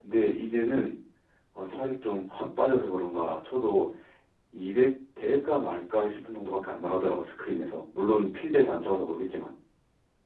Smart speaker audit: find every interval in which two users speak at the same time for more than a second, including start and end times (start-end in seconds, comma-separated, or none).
none